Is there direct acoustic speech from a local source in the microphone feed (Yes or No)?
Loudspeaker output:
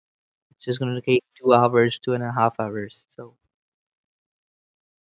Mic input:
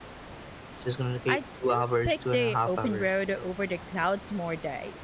Yes